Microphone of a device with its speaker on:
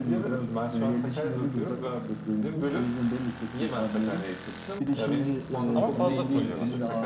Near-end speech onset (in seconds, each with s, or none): 5.7 s